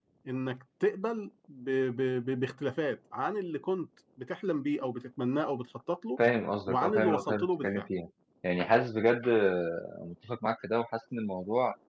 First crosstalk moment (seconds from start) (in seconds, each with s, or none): 6.7 s